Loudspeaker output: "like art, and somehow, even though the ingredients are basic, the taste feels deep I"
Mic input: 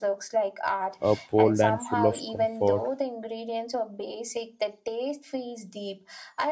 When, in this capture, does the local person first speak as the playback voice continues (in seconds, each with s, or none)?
1.0 s